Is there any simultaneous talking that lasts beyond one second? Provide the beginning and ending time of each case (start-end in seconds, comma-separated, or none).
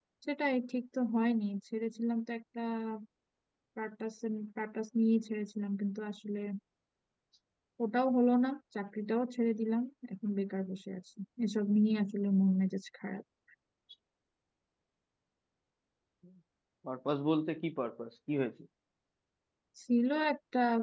none